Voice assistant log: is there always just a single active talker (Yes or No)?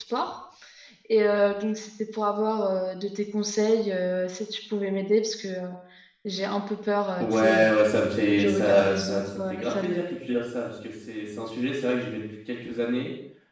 No